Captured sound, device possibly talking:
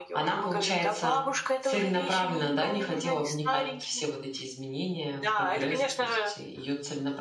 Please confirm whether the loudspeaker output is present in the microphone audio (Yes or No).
Yes